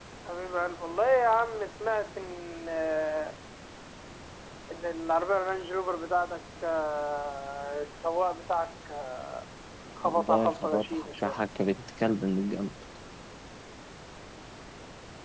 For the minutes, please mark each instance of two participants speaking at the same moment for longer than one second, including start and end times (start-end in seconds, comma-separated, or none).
10.0-11.4